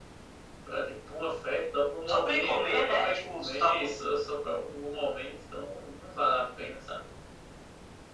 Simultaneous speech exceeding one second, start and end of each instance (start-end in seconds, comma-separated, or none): 2.1-3.9